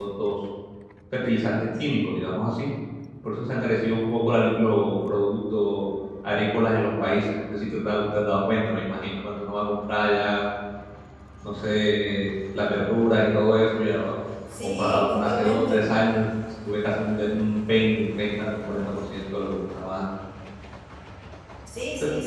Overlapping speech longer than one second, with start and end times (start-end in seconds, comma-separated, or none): 14.6-15.8